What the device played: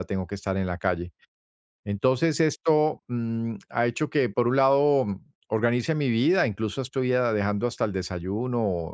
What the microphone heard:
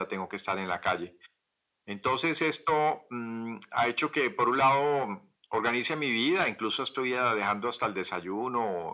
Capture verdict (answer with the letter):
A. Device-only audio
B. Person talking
A